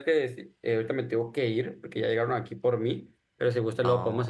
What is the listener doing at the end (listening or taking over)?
listening